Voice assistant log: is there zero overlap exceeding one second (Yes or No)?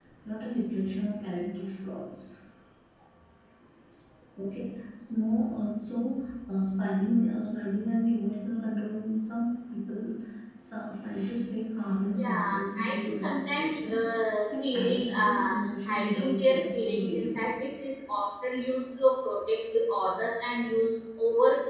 No